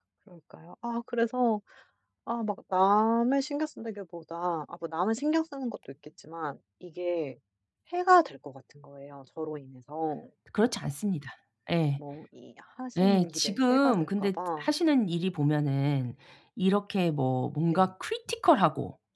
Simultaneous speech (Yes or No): Yes